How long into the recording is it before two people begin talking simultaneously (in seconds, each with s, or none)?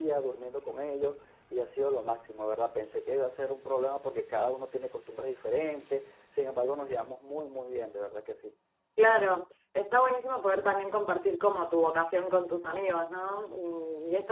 none